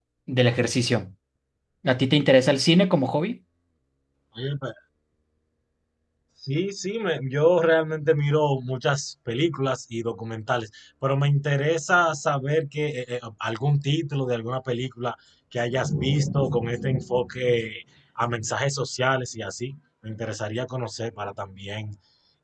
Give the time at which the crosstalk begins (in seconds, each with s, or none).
none